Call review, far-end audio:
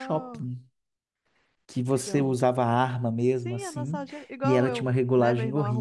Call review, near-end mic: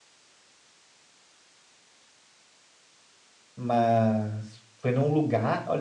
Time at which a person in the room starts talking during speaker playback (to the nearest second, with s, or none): 4 s